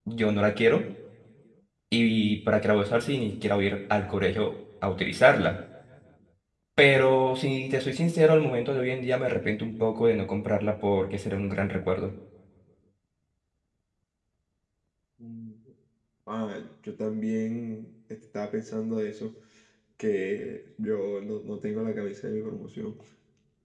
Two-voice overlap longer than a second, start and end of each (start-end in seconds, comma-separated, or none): none